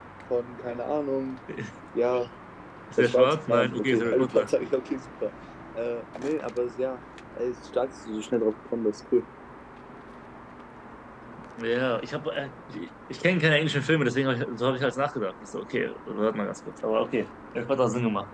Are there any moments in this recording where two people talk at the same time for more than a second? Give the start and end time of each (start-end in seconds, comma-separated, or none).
3.0-4.5